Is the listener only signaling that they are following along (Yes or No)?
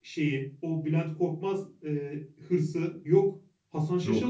Yes